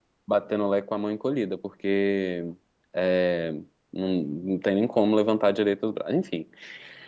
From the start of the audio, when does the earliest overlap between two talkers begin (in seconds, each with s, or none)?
none